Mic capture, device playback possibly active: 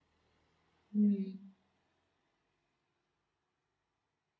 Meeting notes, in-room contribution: present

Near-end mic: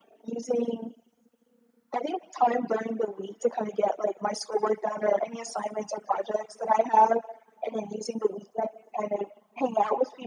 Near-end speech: none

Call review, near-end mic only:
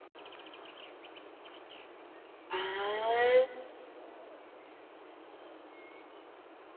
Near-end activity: present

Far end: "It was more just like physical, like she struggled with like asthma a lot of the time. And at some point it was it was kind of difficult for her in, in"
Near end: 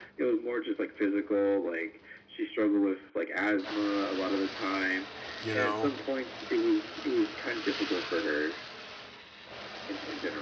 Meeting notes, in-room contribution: present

